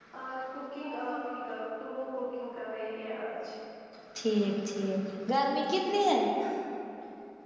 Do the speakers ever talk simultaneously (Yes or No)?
No